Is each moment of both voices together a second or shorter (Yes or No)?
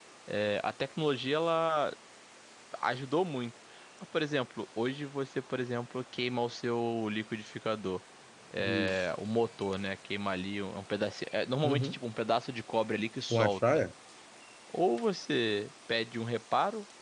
Yes